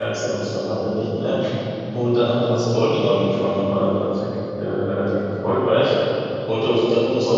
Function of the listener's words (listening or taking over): listening